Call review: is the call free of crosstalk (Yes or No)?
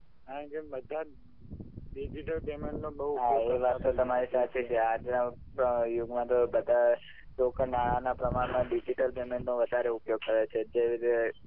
No